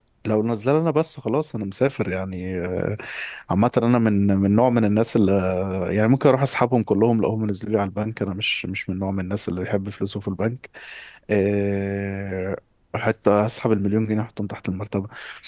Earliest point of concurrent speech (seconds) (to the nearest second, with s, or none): none